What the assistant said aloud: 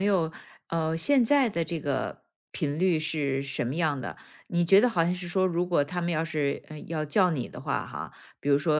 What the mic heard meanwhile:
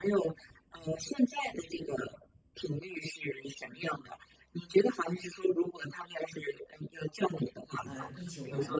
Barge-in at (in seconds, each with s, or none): 7.8 s